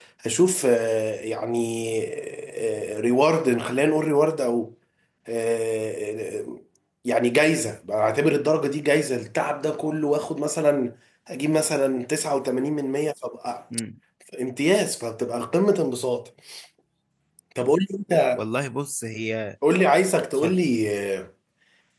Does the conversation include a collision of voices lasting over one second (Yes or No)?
No